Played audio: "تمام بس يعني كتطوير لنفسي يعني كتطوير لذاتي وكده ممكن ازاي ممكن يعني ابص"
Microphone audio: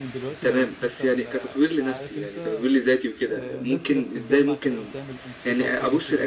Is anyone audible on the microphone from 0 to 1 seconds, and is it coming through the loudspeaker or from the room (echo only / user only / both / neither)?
both